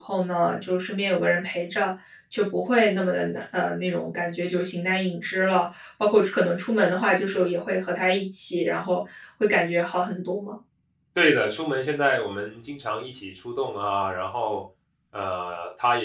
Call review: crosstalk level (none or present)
none